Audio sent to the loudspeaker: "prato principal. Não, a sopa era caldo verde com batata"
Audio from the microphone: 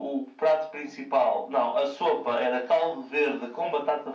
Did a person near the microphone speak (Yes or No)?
No